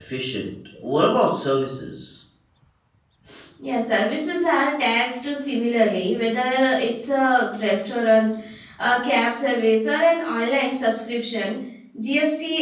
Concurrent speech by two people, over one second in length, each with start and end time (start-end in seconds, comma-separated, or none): none